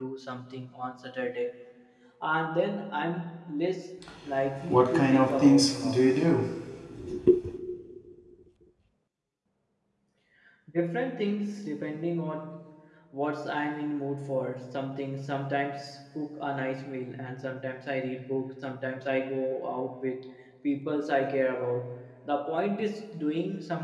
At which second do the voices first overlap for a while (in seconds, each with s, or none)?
4.7 s